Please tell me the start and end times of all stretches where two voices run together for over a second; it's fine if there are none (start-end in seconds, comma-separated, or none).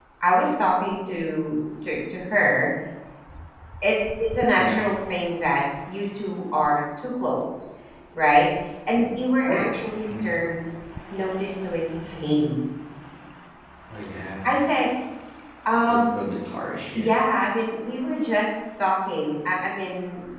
none